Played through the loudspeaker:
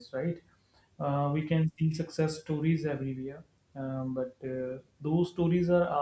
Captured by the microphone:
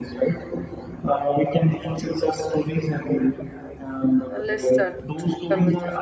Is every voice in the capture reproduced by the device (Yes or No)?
No